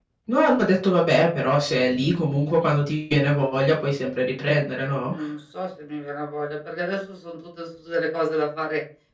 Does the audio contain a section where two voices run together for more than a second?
No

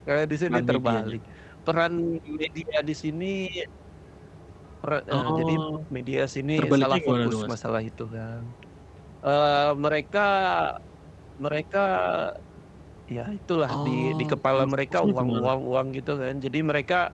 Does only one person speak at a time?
No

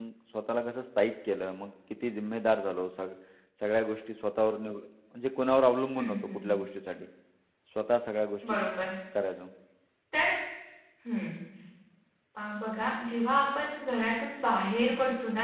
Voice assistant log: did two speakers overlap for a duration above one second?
No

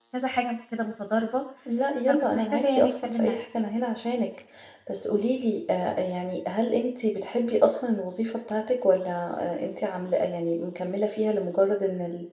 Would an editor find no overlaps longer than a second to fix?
No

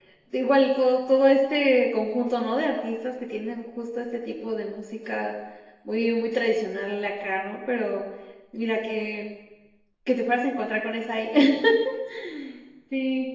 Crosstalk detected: No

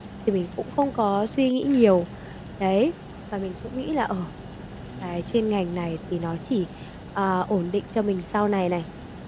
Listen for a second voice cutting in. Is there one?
No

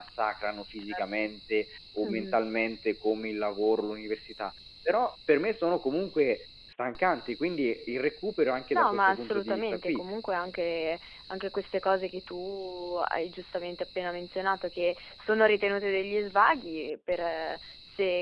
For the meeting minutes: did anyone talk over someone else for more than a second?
Yes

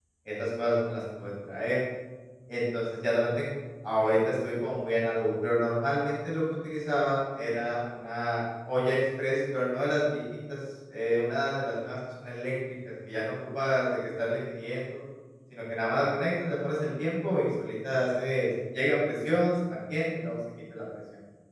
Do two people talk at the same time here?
No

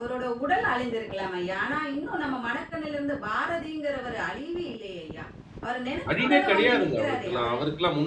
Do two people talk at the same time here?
Yes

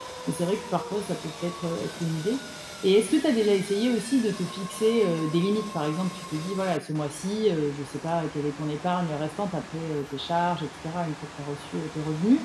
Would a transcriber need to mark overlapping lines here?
No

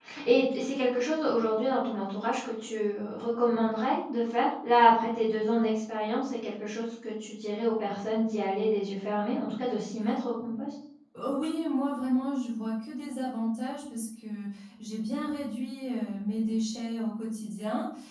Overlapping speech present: No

